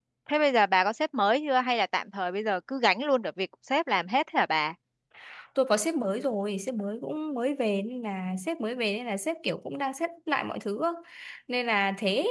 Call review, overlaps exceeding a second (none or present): none